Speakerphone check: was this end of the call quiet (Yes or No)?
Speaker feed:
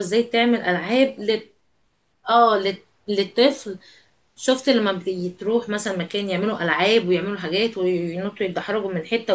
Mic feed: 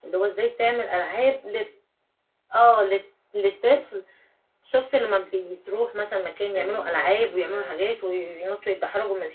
No